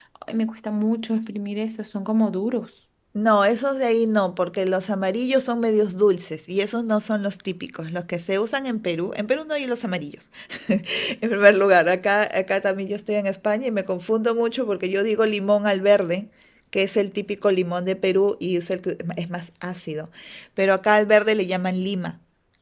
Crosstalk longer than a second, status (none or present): none